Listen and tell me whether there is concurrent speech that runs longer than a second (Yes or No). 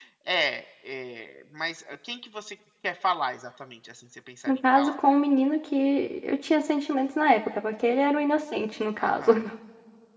No